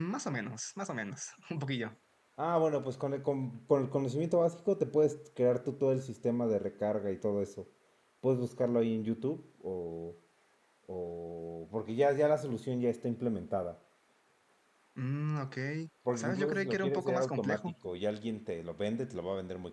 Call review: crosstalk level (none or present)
present